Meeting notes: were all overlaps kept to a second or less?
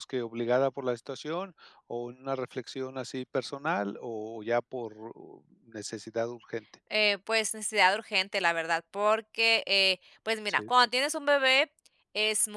Yes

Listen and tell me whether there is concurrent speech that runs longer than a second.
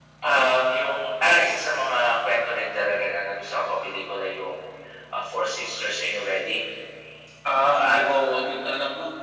No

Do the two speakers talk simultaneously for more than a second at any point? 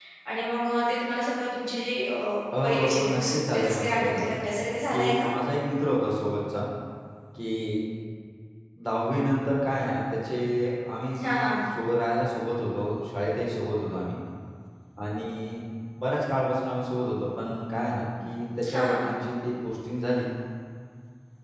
Yes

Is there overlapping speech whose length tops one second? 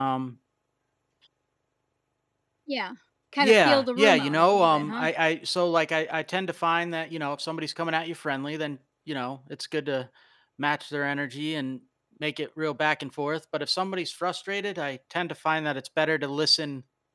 Yes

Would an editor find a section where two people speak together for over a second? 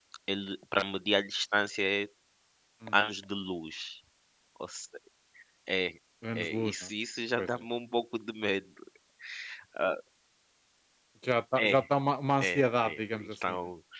Yes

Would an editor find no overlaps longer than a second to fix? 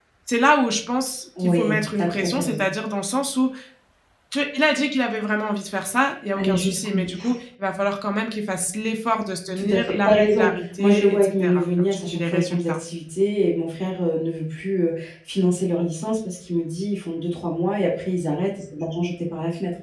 No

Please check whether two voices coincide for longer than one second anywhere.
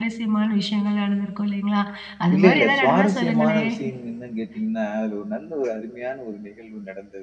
Yes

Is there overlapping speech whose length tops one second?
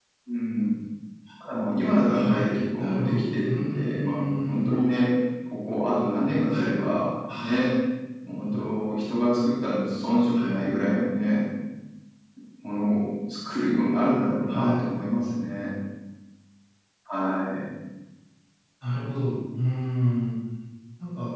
Yes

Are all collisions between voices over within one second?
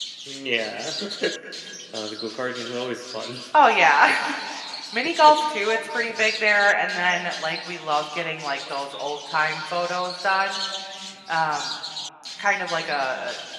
Yes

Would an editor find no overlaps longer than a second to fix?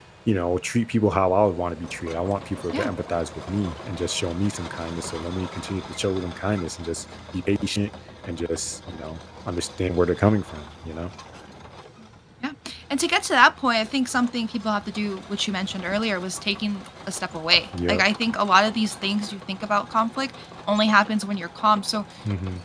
Yes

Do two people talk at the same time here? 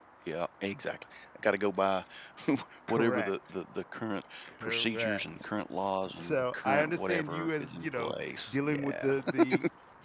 Yes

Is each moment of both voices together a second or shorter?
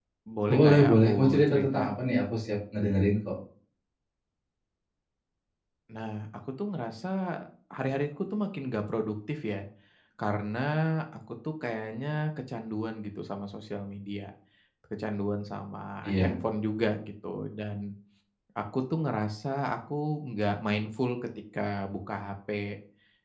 No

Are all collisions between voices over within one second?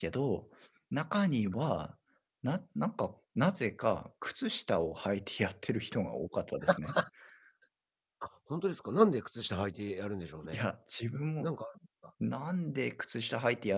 Yes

